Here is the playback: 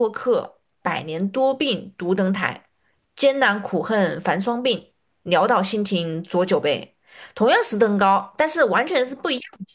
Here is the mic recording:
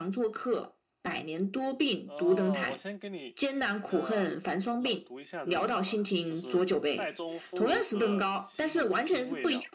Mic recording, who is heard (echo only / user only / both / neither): both